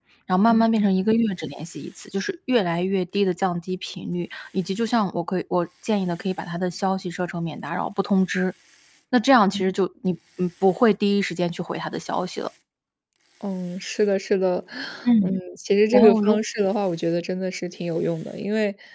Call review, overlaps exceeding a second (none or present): none